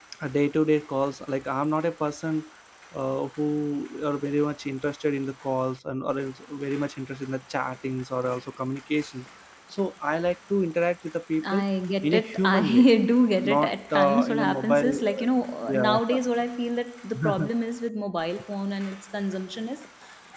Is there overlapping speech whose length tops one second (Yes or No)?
Yes